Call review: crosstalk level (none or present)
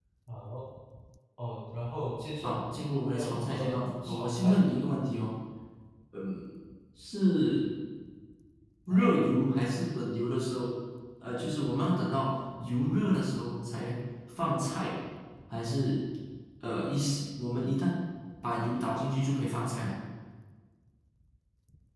present